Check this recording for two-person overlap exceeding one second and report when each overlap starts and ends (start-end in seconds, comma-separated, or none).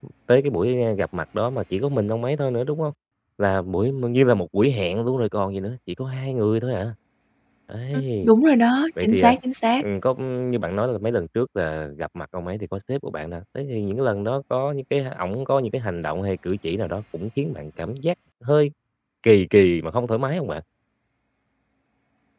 none